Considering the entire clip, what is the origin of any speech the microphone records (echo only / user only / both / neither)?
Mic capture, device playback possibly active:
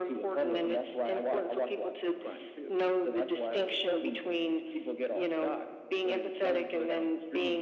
echo only